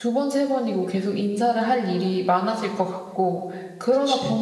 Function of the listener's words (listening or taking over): listening